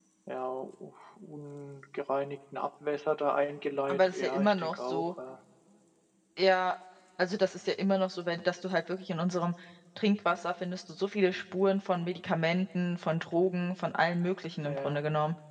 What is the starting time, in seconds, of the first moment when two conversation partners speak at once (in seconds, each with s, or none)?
3.9 s